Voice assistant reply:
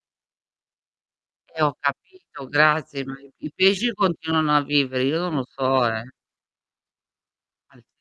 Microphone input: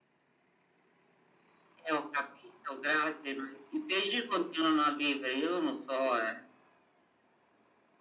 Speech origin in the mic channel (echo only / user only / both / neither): echo only